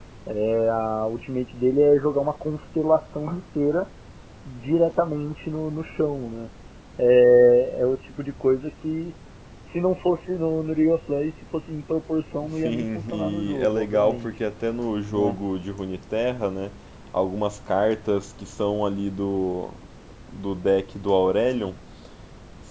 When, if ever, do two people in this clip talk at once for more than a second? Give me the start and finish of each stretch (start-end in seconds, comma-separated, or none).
12.6-14.3